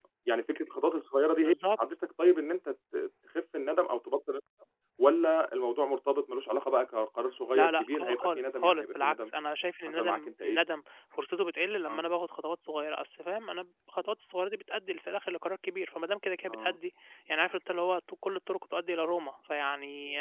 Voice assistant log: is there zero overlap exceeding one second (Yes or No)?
No